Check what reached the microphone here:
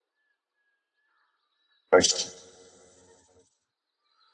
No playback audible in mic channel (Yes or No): Yes